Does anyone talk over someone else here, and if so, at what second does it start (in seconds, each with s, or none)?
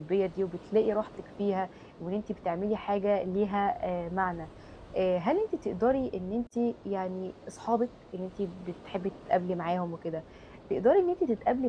none